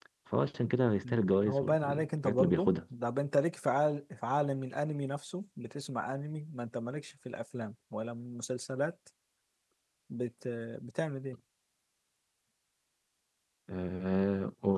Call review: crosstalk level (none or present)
present